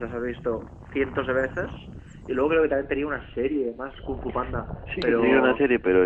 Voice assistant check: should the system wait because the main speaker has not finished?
No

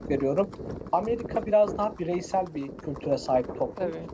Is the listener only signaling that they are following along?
Yes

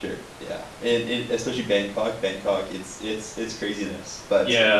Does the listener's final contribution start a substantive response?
Yes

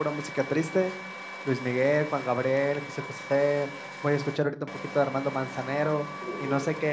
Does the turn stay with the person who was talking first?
Yes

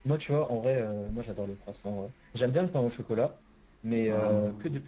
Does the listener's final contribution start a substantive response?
No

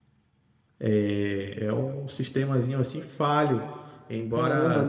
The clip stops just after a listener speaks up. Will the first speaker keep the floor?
No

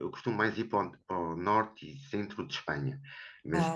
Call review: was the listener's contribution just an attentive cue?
Yes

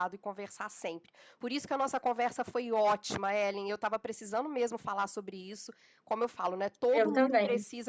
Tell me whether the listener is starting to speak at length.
No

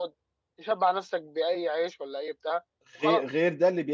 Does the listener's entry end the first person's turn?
Yes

